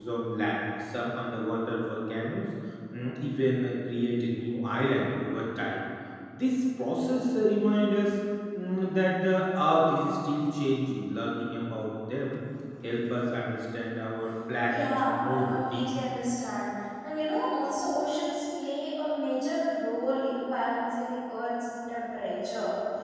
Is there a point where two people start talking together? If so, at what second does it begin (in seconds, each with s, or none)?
14.7 s